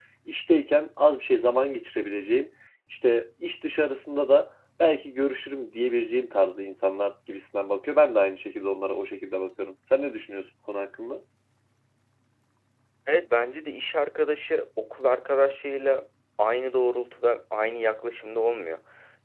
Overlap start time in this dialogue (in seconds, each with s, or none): none